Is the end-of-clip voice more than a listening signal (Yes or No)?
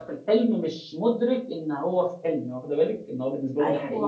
Yes